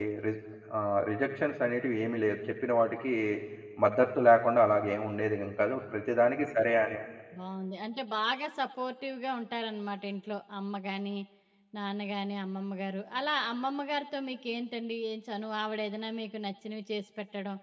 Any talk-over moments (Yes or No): No